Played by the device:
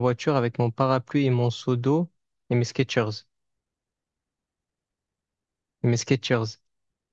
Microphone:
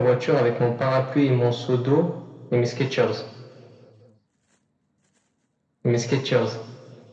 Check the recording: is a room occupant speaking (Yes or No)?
No